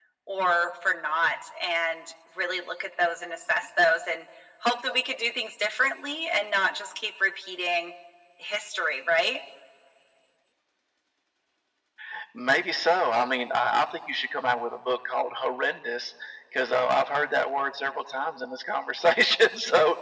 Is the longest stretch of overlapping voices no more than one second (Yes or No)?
Yes